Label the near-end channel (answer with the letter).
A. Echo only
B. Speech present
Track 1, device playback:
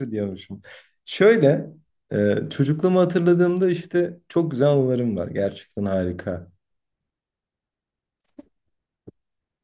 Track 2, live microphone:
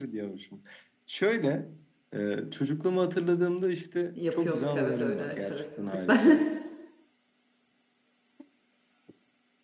B